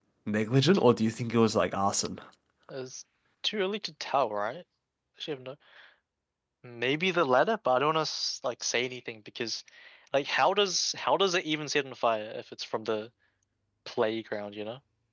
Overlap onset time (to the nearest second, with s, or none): none